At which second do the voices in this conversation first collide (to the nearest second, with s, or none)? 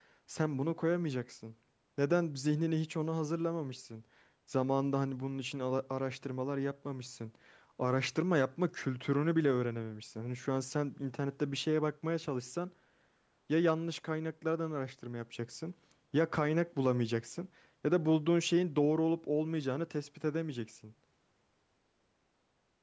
none